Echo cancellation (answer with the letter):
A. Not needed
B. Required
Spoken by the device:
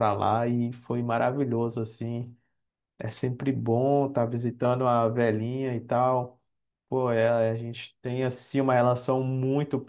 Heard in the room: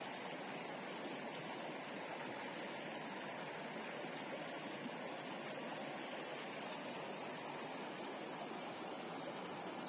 A